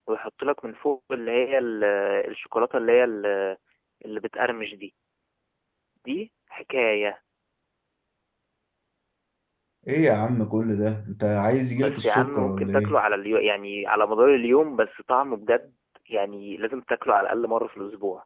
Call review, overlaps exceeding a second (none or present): present